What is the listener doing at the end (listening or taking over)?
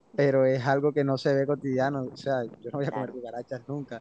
listening